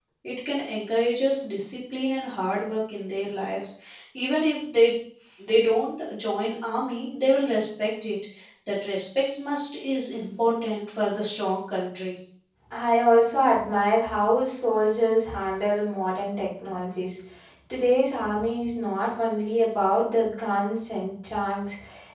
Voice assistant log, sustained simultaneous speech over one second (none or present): none